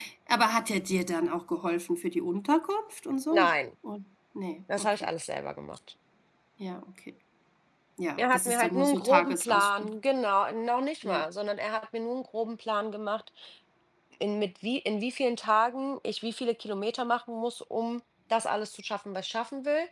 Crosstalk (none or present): present